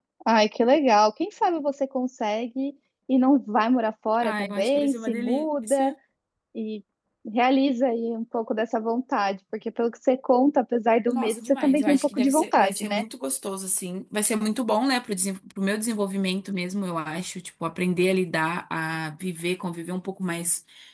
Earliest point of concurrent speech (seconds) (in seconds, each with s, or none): 4.2 s